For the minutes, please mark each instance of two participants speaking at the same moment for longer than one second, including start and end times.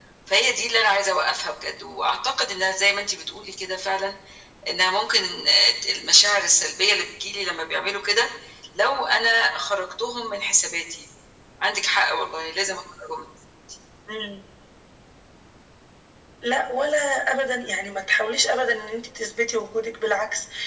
none

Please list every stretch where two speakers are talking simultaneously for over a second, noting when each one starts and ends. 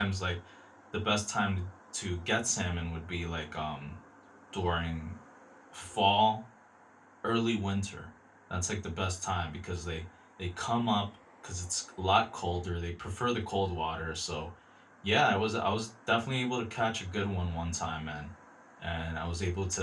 none

